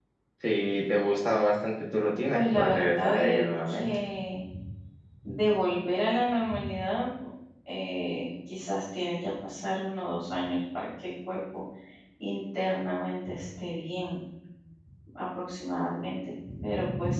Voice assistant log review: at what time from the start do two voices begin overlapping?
2.3 s

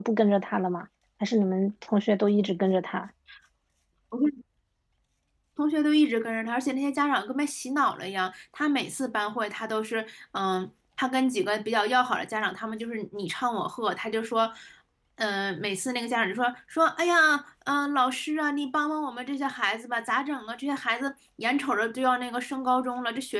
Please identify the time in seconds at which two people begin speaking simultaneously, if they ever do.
none

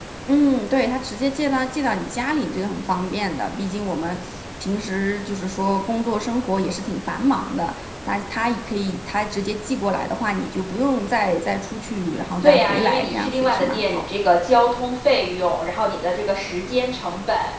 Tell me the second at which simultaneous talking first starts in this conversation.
12.4 s

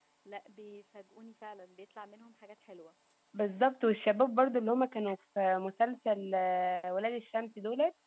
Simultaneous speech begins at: none

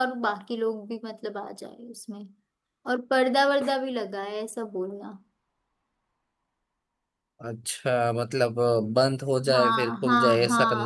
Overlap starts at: 9.4 s

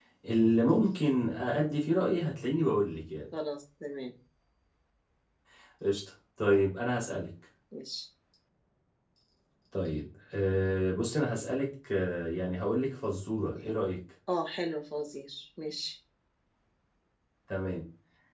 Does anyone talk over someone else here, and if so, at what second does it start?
none

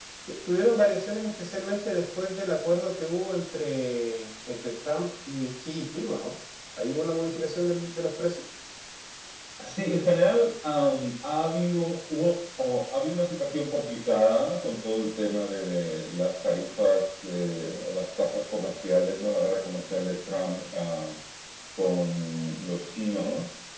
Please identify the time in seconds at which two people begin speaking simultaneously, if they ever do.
none

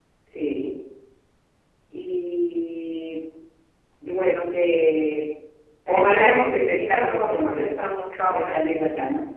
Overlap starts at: 5.9 s

